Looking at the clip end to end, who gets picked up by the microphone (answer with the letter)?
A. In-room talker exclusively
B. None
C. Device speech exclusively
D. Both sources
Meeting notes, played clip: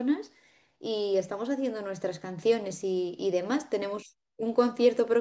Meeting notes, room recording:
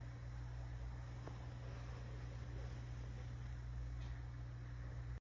B